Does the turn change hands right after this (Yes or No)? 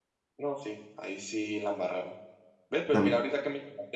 No